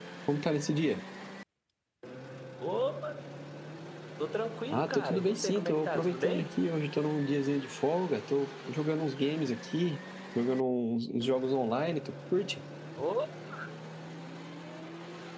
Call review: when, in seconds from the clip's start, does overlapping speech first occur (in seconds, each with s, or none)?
4.7 s